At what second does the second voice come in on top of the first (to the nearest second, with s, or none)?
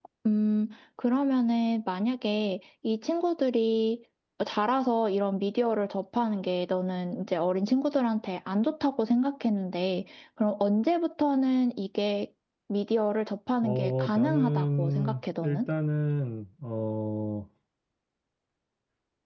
14 s